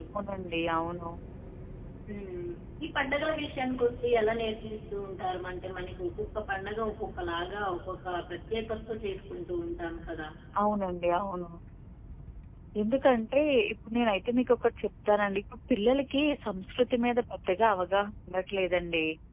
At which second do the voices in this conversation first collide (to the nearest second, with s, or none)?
none